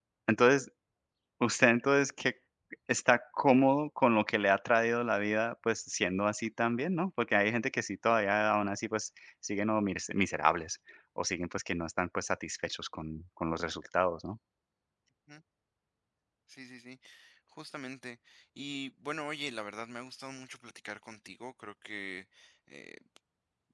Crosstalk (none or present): none